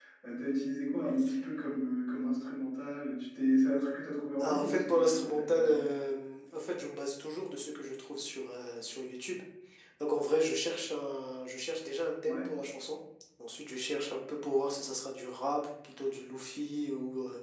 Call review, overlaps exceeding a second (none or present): present